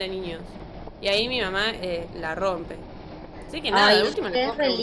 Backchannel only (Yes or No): No